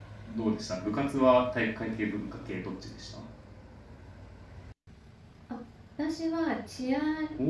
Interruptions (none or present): none